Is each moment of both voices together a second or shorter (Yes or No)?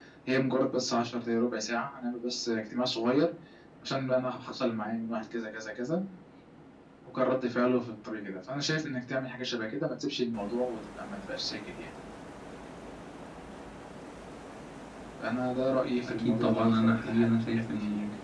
No